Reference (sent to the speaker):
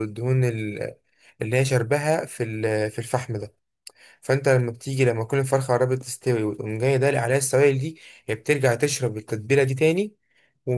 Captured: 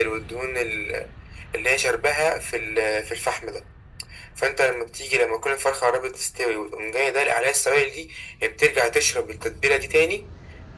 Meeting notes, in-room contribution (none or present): none